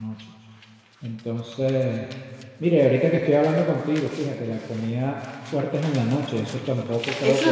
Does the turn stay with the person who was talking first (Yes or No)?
No